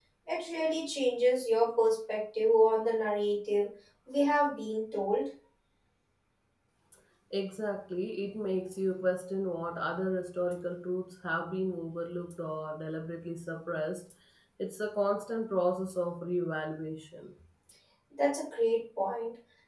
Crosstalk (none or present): none